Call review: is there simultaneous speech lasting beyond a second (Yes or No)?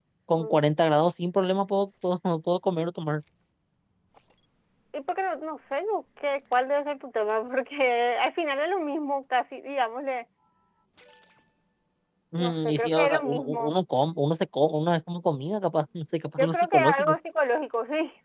Yes